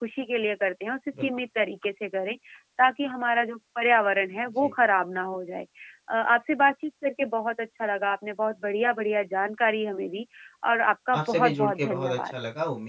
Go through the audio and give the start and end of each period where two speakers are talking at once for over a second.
11.2-12.4

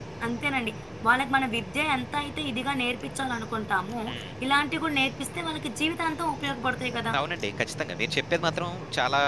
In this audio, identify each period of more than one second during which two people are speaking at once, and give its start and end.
none

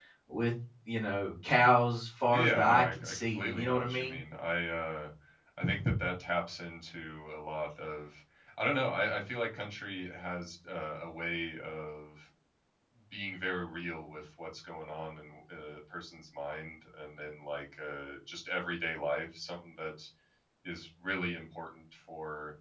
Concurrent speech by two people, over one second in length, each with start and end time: 2.3-4.2

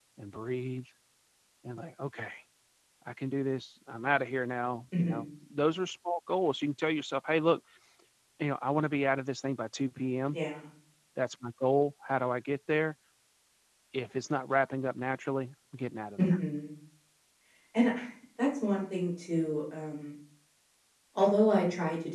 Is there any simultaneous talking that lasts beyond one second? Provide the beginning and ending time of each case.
none

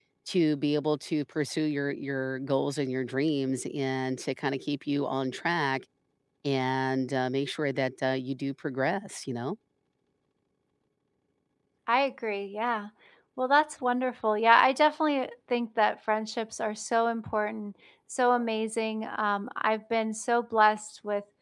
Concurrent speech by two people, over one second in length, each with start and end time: none

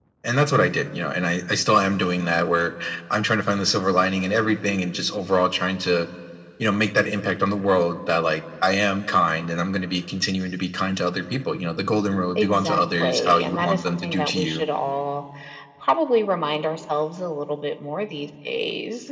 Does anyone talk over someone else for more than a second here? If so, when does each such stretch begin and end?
12.3-14.6

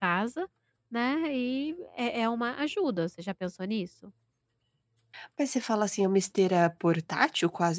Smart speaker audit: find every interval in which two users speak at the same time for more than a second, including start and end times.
none

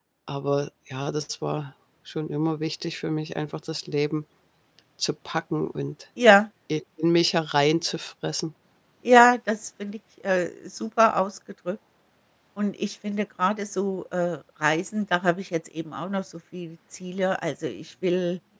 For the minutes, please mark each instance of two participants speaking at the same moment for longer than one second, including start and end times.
none

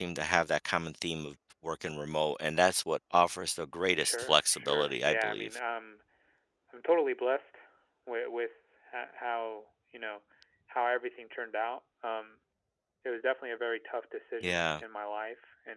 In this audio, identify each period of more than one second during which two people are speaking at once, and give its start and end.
4.0-5.6

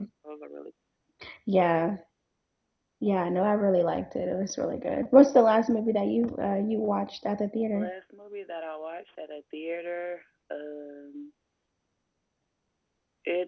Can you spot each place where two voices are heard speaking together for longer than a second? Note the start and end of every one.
none

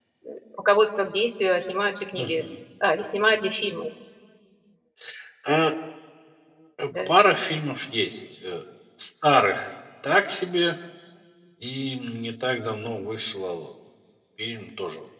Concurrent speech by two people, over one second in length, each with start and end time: none

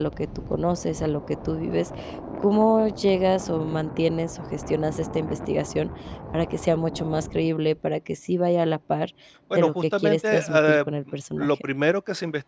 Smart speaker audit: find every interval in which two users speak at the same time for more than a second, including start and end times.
9.5-10.8

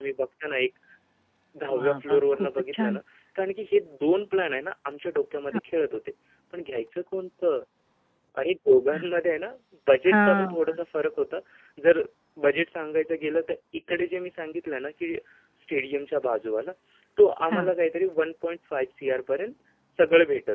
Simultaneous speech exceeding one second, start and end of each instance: 1.7-3.0

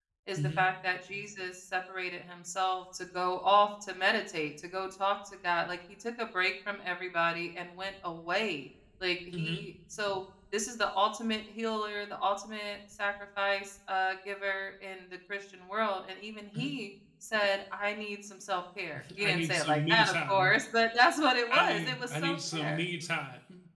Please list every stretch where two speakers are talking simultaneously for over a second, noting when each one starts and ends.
19.2-20.5, 21.5-22.8

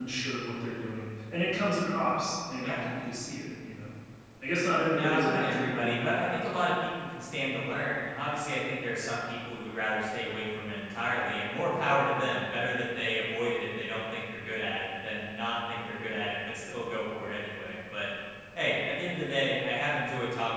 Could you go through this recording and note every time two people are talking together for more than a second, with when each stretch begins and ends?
4.9-6.5

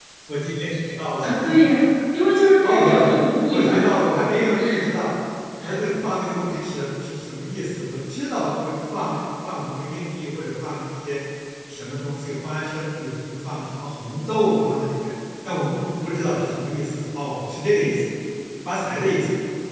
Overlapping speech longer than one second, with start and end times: none

